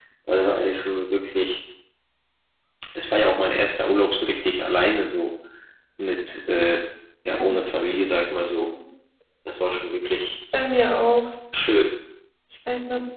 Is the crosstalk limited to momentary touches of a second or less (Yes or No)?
Yes